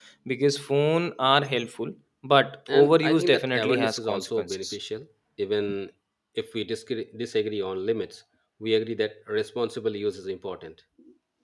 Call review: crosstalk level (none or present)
present